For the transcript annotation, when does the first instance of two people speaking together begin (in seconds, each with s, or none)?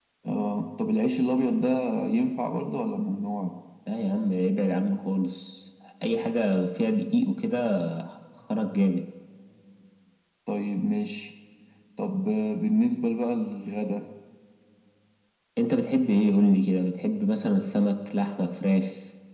none